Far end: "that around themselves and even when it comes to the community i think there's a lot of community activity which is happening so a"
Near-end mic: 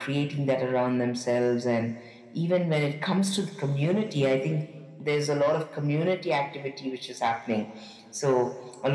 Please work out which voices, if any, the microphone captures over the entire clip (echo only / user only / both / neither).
echo only